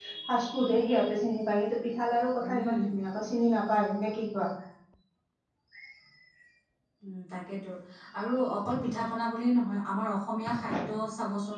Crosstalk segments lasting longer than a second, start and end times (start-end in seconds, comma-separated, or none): none